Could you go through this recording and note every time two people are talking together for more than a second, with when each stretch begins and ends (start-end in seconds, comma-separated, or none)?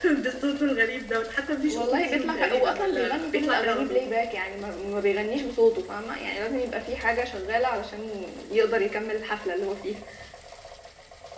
1.7-4.0